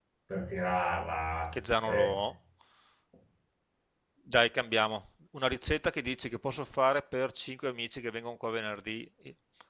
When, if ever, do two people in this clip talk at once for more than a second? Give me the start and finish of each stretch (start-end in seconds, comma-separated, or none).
none